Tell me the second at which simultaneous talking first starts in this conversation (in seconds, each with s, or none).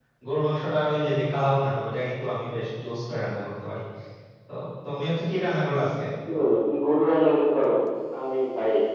none